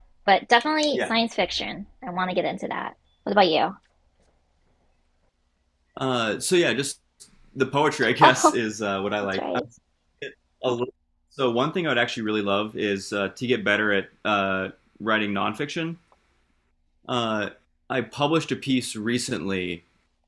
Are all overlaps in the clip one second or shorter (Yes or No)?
Yes